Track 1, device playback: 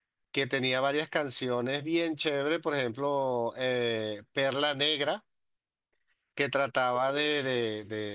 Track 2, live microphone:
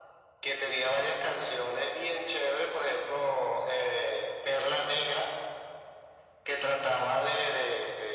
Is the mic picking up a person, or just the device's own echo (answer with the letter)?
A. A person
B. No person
B